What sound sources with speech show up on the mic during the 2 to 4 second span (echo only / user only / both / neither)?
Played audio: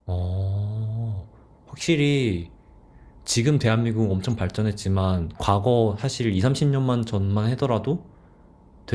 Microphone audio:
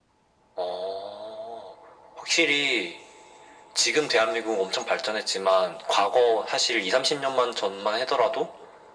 echo only